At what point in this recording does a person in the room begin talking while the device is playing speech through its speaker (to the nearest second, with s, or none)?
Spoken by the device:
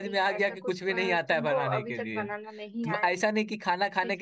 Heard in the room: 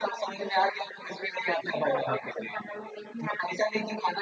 none